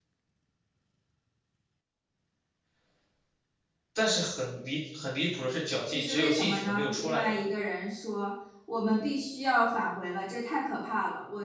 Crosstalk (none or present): present